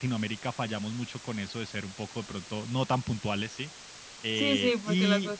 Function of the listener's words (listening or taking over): taking over